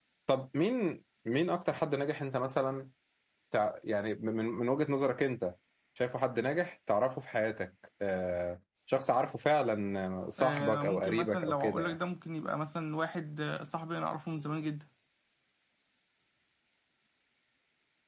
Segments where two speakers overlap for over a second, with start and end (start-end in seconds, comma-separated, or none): 10.4-11.9